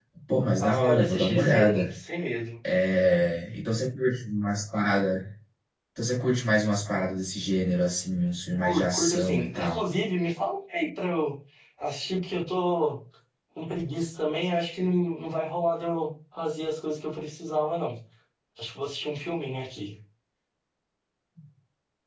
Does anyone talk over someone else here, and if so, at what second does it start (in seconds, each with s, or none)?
0.6 s